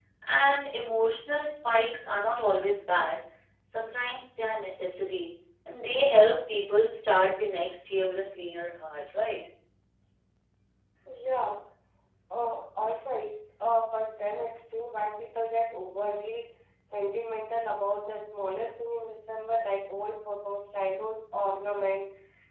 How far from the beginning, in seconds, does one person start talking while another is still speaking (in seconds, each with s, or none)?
none